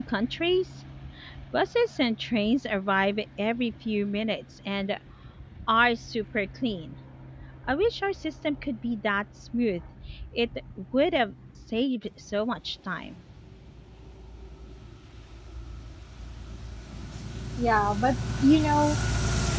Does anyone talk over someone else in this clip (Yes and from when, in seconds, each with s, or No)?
No